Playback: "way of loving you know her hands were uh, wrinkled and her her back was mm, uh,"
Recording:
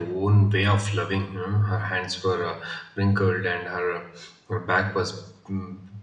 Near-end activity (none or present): none